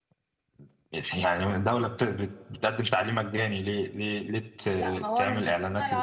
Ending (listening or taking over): taking over